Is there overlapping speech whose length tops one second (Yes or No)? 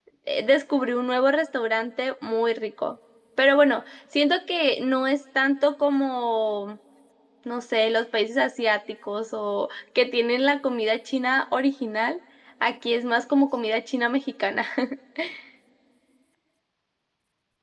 No